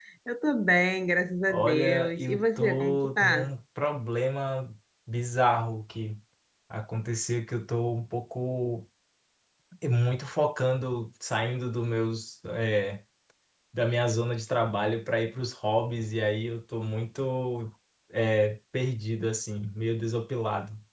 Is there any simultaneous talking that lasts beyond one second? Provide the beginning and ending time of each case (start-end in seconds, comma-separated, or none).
1.5-3.5